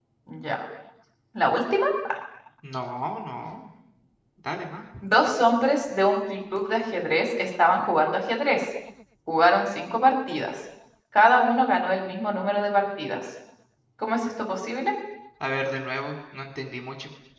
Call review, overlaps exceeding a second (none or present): none